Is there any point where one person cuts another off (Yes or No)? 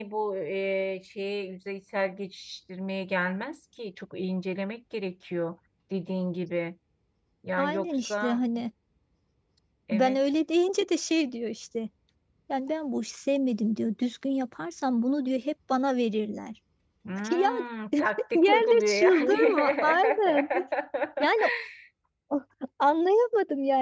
Yes